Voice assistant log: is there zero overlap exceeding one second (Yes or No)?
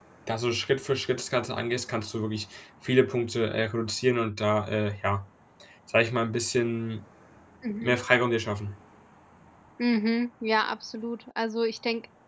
Yes